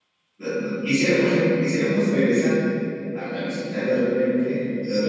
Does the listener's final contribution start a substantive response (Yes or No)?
No